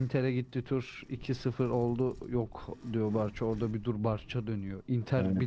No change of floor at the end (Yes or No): Yes